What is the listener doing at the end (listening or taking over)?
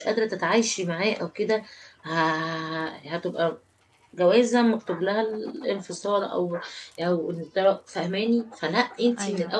listening